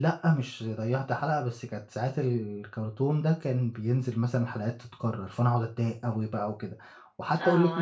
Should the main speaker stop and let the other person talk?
Yes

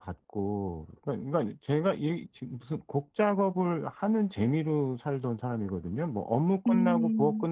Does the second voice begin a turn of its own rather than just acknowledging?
No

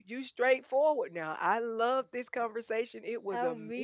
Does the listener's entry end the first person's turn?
Yes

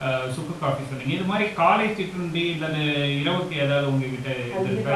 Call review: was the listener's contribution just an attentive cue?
No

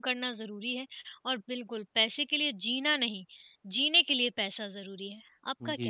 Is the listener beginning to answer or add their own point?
Yes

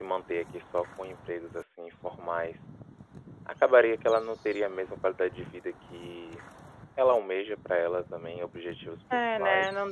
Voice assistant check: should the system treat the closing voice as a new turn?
Yes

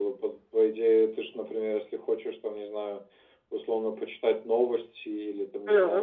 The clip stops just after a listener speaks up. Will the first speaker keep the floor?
Yes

